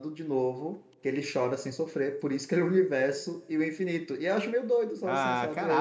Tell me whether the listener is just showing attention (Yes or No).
No